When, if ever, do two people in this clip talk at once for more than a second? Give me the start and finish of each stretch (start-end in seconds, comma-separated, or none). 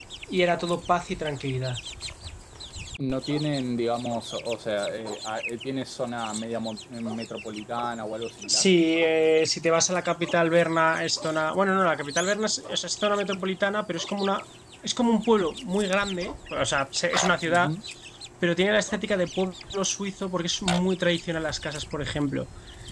none